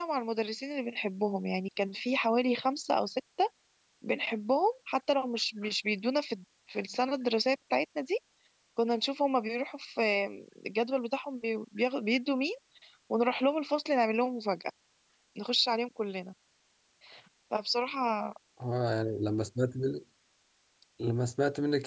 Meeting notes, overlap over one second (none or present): none